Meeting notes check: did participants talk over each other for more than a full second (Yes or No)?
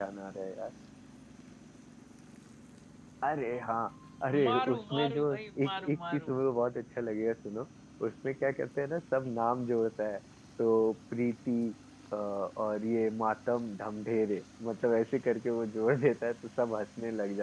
Yes